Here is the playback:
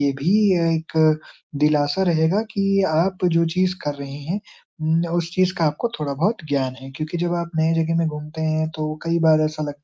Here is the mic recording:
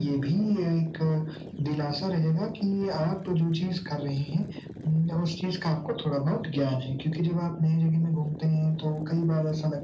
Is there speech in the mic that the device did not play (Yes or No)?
No